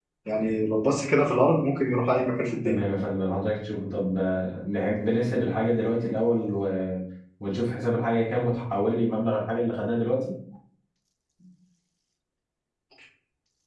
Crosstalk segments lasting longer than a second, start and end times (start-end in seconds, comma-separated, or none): none